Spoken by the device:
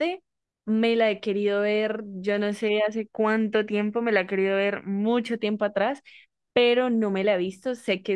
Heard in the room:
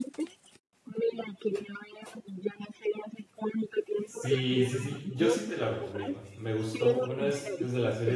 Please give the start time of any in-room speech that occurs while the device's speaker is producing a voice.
4 s

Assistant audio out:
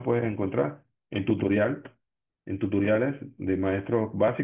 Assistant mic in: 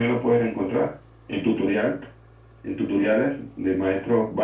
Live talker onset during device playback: none

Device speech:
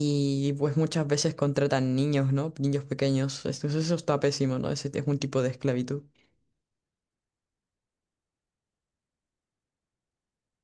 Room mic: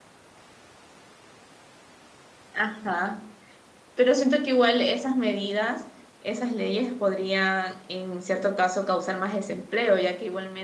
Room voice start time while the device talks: 3 s

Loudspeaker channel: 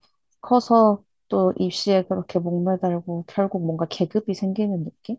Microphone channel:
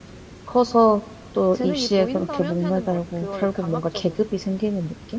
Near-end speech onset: 2 s

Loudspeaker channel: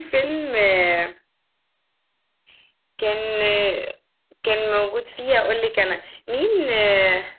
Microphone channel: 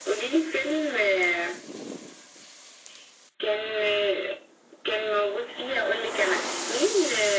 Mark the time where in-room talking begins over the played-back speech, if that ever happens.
none

